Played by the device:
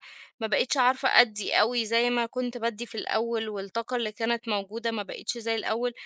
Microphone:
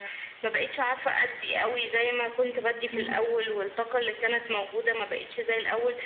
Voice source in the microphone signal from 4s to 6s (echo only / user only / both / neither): echo only